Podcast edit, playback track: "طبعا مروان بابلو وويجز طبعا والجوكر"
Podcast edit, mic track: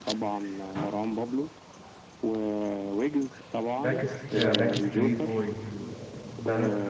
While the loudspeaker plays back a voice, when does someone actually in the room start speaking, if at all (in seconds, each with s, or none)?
3.8 s